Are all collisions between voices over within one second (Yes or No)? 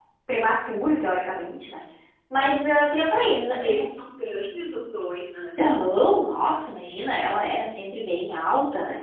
Yes